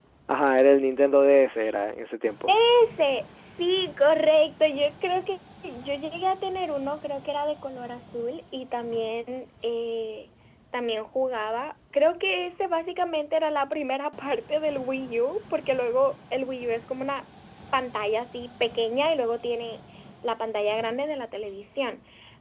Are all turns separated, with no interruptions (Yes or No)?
Yes